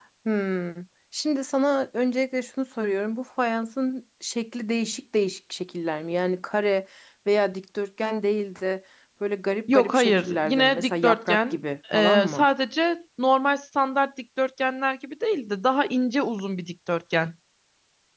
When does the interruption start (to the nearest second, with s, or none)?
10 s